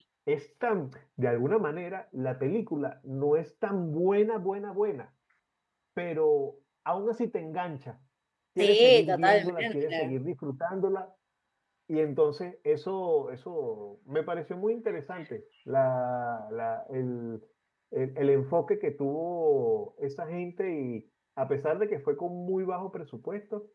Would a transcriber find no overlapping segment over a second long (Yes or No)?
No